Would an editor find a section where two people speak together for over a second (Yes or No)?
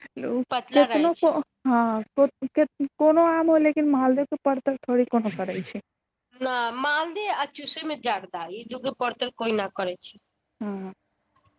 No